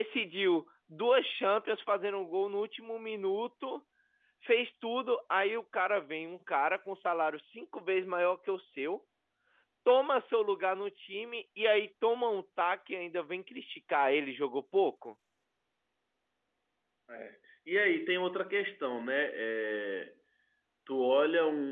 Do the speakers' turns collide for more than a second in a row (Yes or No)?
No